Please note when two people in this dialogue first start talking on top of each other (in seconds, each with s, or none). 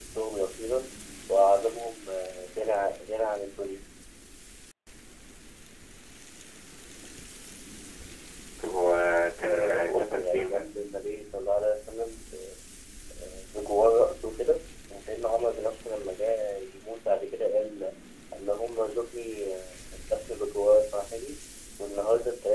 9.4 s